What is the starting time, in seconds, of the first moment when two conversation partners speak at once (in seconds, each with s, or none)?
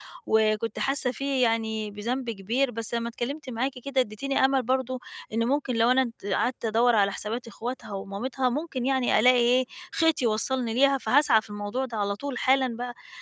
none